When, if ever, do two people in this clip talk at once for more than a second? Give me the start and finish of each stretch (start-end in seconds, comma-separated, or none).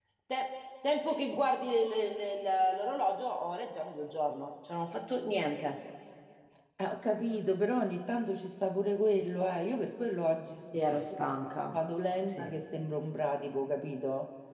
none